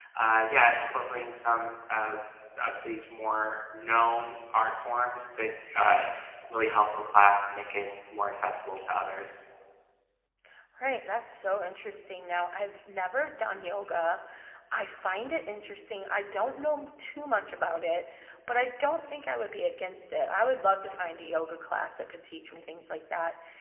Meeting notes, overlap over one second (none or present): none